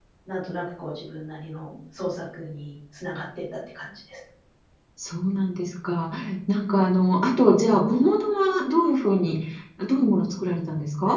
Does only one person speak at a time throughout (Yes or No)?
Yes